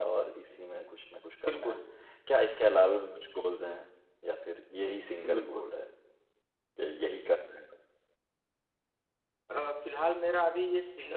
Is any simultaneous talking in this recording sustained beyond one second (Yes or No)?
No